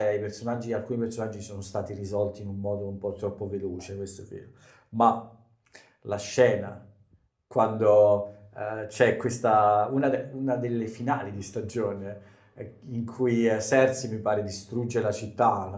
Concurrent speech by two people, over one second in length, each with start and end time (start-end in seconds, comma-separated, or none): none